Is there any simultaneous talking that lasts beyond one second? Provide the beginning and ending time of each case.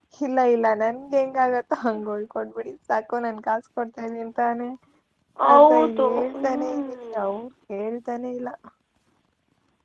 5.5-7.2

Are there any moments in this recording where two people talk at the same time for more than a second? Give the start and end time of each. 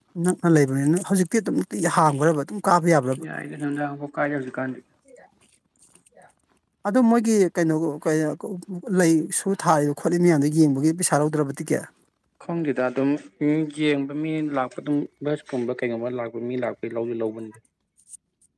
none

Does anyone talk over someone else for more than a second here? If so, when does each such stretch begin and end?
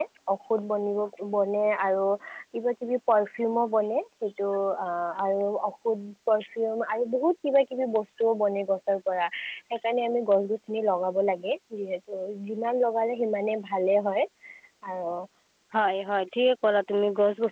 none

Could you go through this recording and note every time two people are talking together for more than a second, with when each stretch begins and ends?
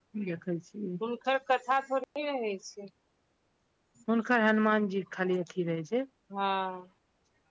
none

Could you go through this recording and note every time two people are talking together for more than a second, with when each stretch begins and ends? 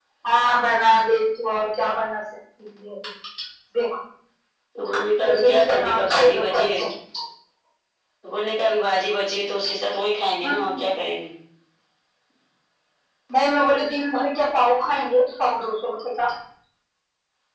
5.2-6.8

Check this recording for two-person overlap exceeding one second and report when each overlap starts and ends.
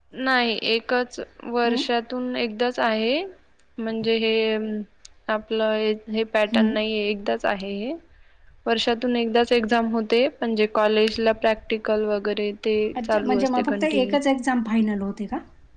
12.9-14.2

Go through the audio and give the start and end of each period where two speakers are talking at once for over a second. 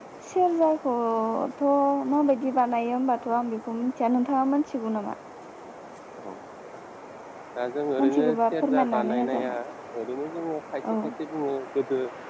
8.0-9.5

